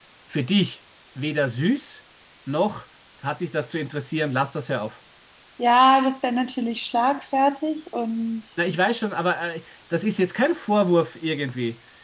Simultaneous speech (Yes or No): No